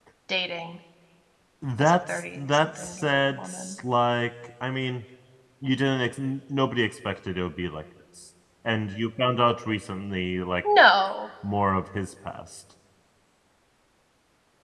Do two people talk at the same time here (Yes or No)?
Yes